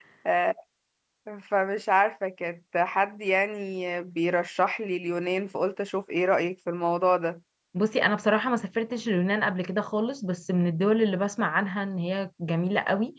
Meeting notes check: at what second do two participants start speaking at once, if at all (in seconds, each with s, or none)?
none